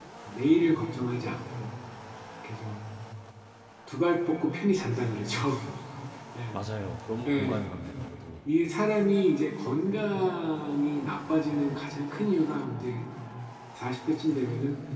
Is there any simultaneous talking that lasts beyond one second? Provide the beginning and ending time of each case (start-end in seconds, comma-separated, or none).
none